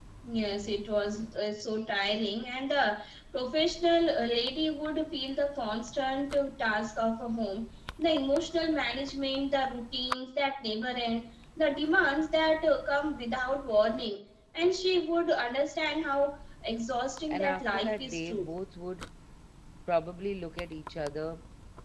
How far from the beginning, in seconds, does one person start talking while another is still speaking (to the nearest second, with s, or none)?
17 s